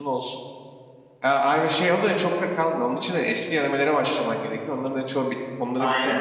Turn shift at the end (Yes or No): No